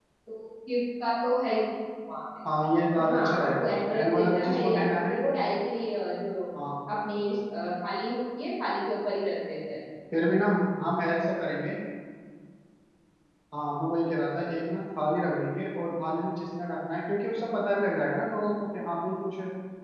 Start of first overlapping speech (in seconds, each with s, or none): 3.1 s